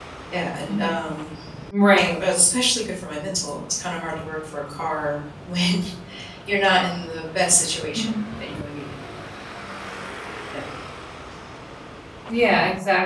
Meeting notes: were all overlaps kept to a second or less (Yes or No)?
Yes